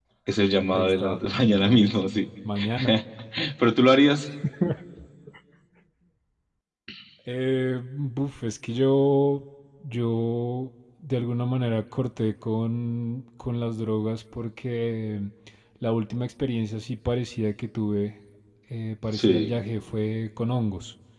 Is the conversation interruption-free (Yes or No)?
No